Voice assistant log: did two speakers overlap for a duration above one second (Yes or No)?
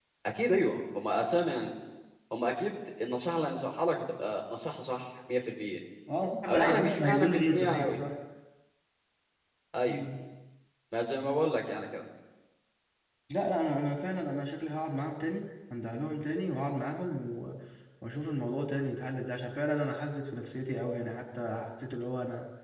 Yes